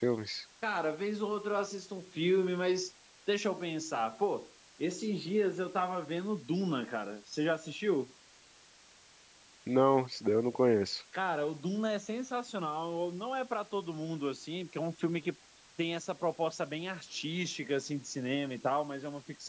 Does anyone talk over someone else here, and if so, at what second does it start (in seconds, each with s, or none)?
none